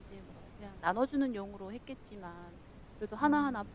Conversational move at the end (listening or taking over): listening